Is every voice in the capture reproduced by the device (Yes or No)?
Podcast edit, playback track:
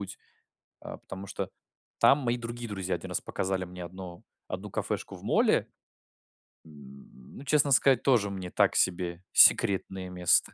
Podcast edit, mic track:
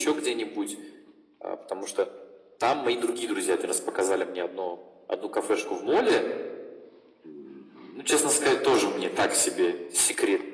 Yes